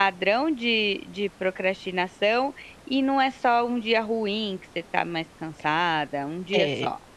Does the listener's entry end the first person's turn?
Yes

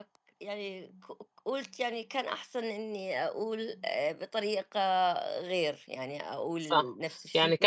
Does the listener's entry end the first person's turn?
Yes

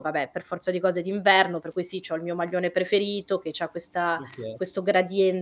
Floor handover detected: No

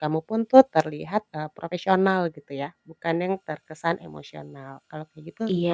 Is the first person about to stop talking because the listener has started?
Yes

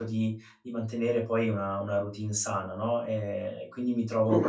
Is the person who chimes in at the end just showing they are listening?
Yes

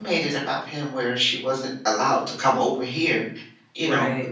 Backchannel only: Yes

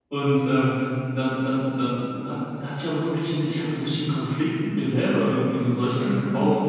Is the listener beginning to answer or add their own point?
No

